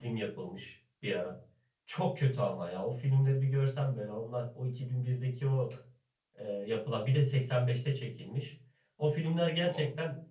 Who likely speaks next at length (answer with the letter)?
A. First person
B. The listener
A